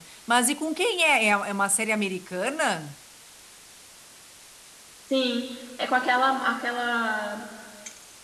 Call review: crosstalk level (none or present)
none